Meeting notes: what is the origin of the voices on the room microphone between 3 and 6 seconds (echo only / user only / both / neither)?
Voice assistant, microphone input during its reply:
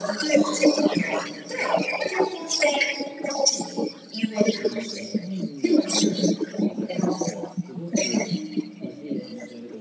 both